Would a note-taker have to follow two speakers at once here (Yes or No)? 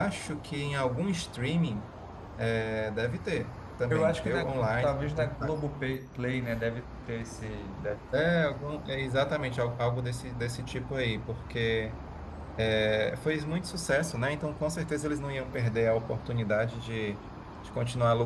Yes